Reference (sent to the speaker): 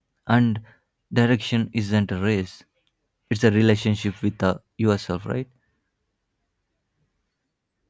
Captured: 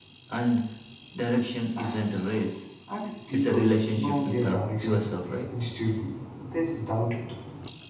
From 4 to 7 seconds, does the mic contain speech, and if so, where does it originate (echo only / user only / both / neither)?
both